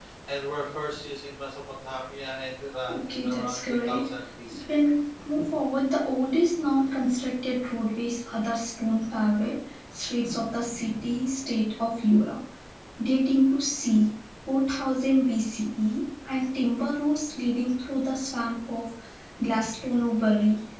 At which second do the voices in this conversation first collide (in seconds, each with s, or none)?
2.9 s